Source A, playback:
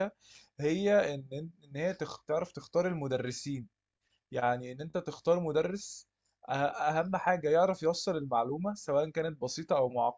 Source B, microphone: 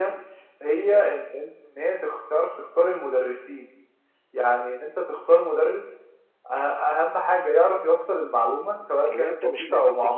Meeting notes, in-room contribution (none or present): present